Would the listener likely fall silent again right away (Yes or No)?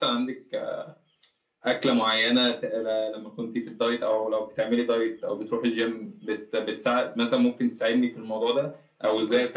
Yes